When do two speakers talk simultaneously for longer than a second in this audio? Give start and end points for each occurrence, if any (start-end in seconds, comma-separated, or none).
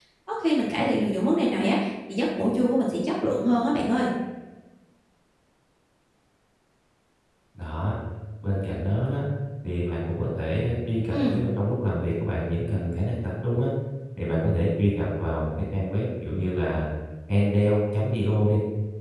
none